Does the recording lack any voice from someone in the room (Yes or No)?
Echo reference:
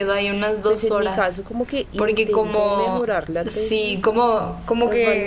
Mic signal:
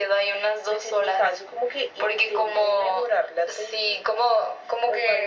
Yes